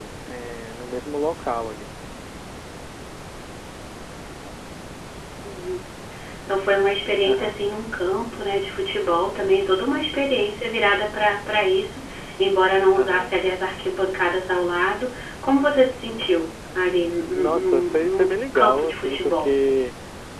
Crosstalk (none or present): present